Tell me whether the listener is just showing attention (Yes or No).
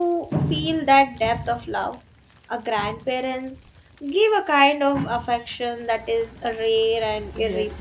No